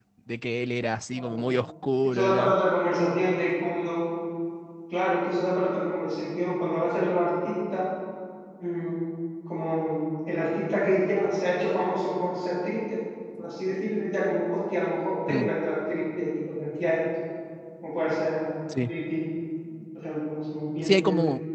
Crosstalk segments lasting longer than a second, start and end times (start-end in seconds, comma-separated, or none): none